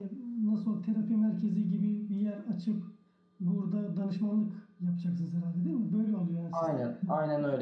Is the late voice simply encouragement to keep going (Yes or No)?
No